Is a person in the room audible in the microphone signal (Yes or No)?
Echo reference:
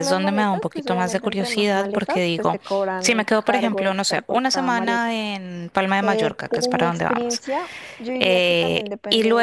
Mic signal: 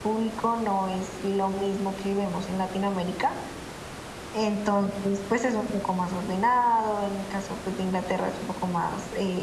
Yes